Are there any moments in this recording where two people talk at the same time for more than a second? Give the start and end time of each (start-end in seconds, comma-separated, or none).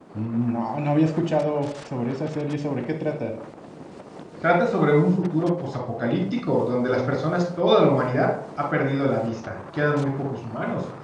none